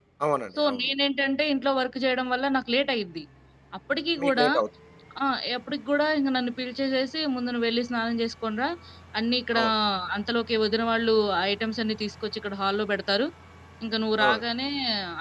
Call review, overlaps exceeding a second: none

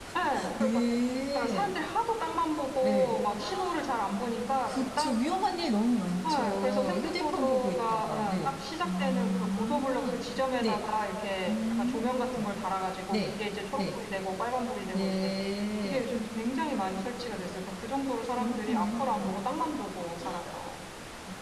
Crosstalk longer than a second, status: present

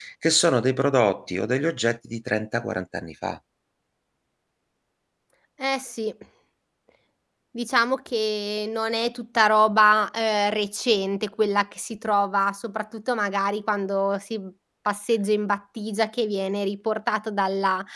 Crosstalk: none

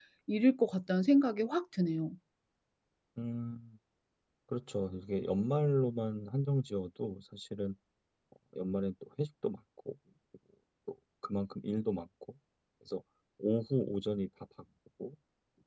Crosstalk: none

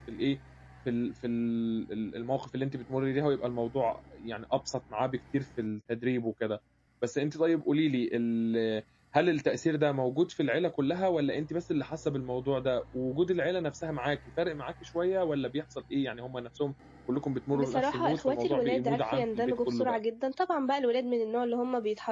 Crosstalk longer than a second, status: present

